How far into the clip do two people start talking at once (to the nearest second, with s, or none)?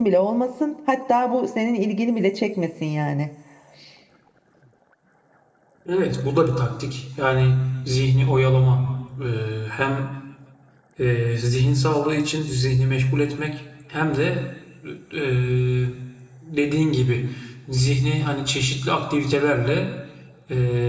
none